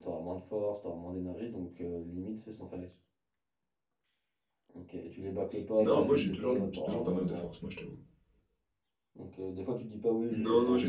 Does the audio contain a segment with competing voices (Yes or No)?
Yes